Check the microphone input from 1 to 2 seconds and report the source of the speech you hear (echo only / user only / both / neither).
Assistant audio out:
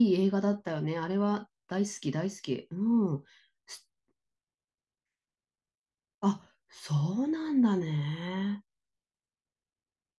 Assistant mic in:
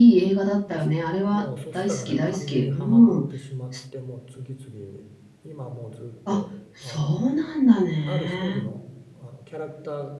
both